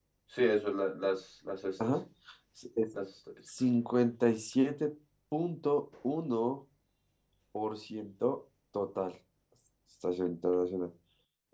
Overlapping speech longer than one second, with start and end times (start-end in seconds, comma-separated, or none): none